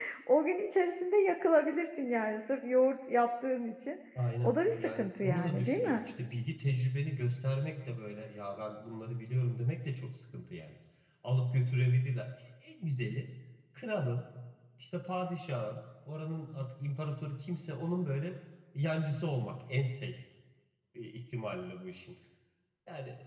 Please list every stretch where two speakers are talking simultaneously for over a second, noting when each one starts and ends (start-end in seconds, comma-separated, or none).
4.4-6.0